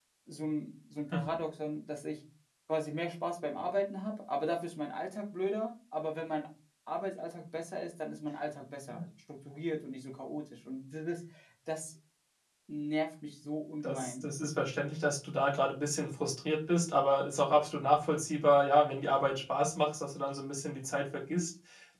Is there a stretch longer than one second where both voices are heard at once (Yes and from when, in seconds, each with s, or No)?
No